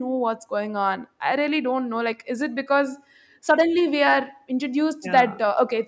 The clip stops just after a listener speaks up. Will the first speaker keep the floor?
Yes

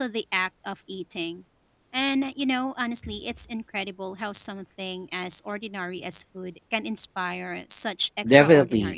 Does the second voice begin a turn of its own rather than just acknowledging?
Yes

